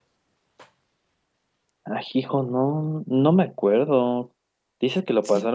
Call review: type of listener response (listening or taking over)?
listening